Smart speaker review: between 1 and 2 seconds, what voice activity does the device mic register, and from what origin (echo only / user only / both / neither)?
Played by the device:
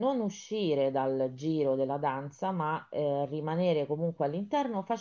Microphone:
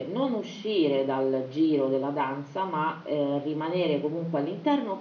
echo only